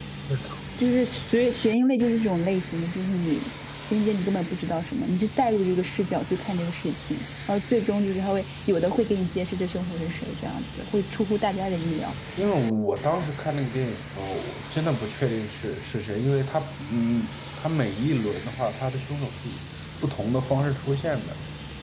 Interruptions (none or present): none